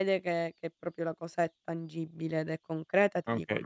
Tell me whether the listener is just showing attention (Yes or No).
No